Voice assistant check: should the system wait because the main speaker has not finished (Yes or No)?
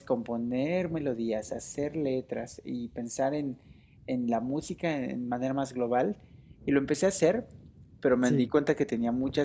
Yes